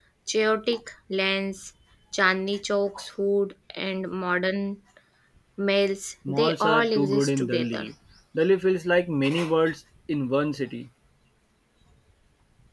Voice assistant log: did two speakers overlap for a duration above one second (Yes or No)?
Yes